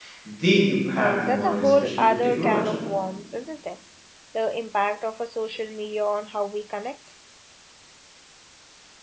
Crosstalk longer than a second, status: present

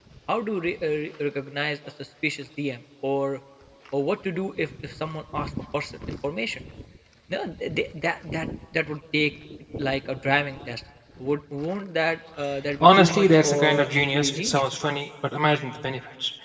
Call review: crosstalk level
present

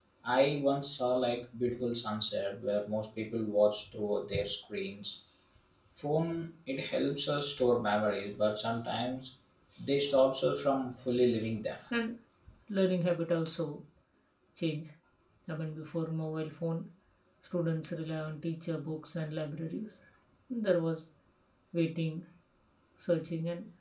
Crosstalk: none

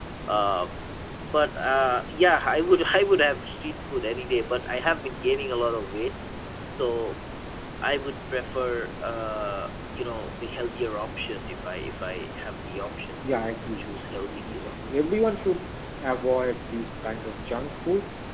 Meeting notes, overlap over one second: present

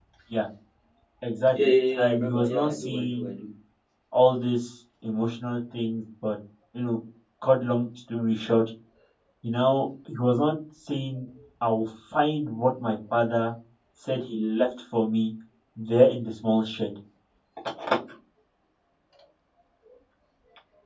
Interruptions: present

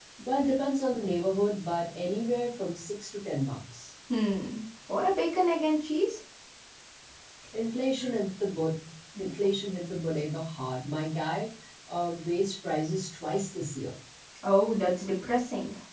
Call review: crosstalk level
none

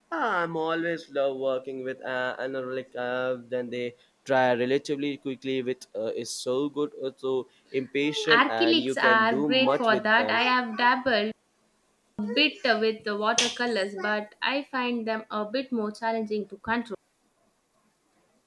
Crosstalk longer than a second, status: present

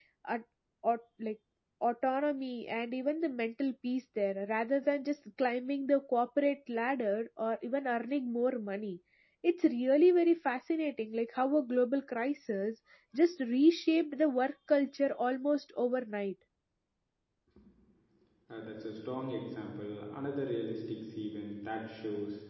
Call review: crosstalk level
none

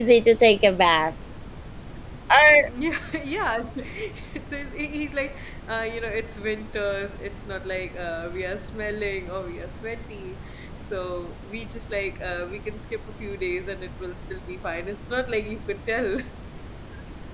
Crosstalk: none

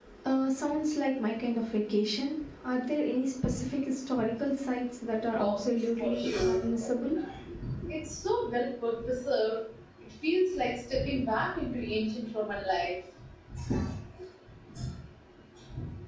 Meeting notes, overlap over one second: present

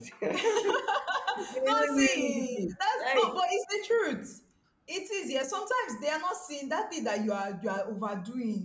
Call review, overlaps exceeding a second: present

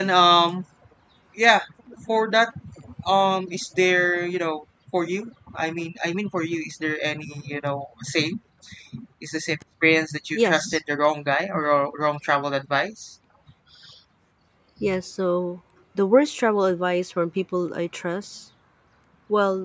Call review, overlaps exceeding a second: none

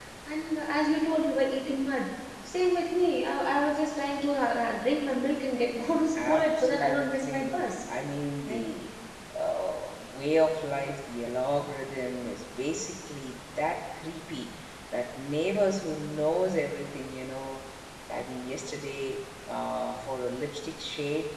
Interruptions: present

